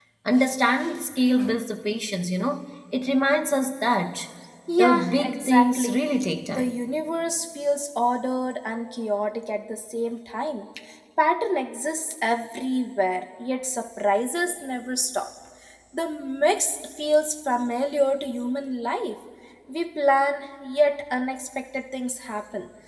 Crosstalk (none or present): present